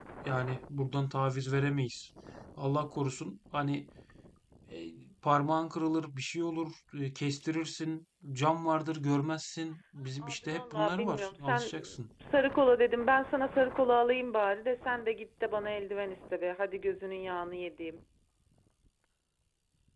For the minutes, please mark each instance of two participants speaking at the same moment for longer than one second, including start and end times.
10.2-11.8

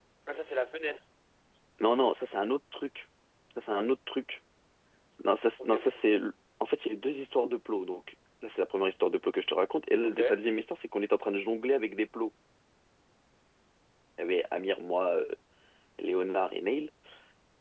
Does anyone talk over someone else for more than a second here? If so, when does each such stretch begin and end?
none

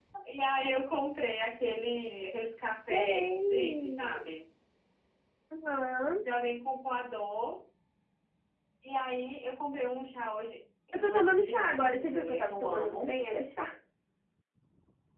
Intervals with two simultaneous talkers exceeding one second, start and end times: 2.9-4.2, 10.9-13.1

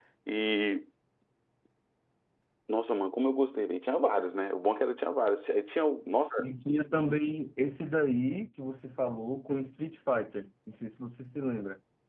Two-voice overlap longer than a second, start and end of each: none

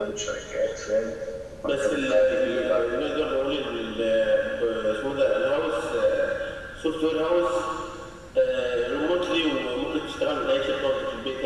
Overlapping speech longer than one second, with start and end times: 1.6-2.9

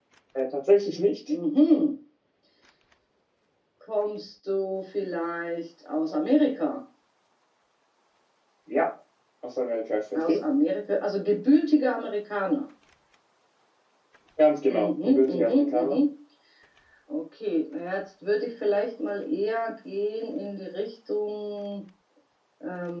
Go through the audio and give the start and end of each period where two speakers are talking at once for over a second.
14.7-16.0

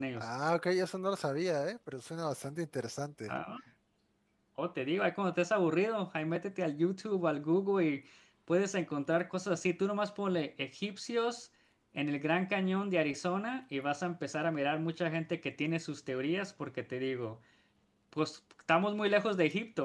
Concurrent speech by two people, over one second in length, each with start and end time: none

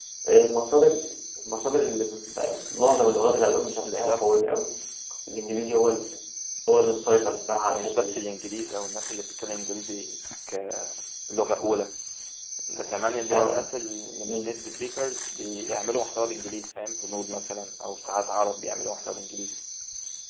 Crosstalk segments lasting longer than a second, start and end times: none

